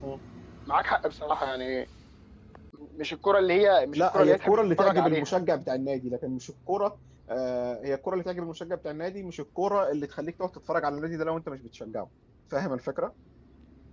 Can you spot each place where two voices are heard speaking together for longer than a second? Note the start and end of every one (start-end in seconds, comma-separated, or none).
3.9-5.3